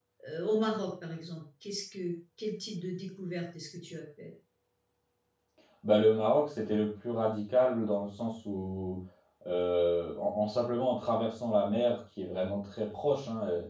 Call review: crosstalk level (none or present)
none